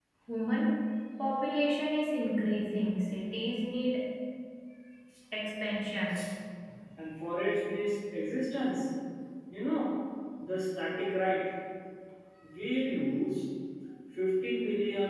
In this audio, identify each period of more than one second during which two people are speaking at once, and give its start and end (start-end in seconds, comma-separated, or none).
none